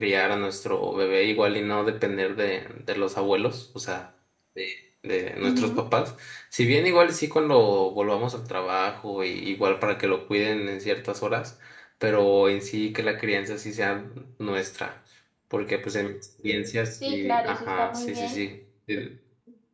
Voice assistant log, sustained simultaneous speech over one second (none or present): present